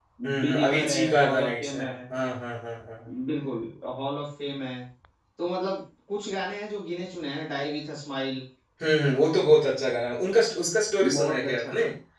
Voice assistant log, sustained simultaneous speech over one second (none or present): present